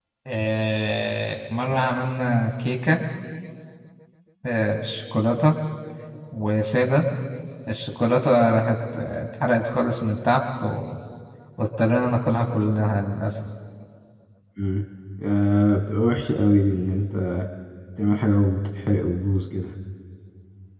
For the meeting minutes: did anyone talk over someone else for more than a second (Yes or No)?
No